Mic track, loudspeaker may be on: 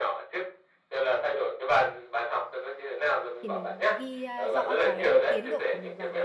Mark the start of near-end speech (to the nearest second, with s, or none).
3 s